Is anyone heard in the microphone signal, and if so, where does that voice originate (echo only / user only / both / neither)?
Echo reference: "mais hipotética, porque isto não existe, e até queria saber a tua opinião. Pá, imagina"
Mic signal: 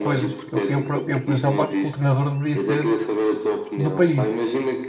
both